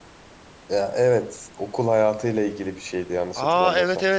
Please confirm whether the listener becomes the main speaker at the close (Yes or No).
Yes